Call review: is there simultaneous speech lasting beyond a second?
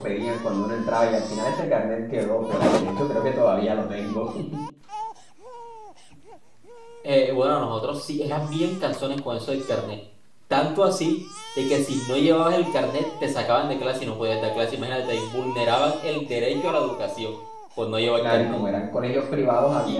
No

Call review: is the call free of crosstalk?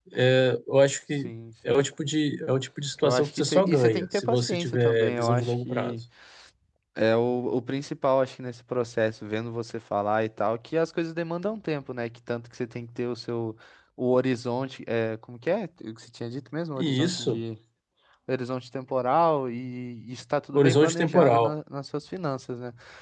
No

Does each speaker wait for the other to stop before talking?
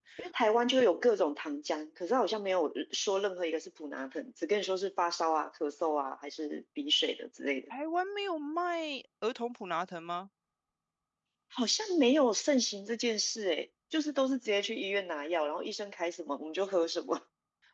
Yes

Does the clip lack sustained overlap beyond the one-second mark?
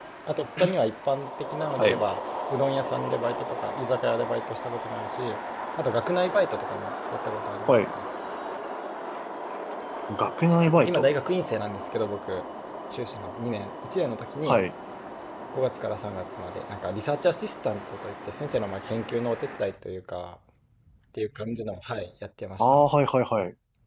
Yes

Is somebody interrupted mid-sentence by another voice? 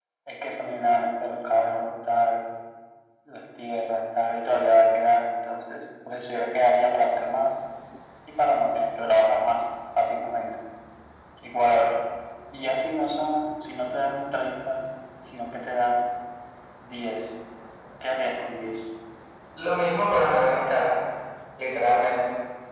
No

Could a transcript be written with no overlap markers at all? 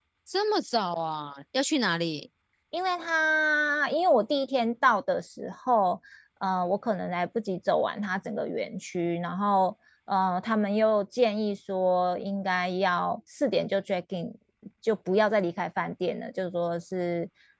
Yes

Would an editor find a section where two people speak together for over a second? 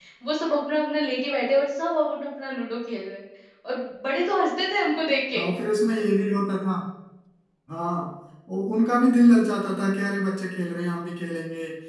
No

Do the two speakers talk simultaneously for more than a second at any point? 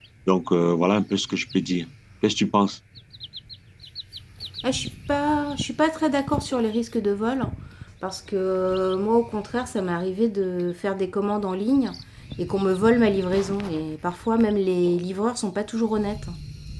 No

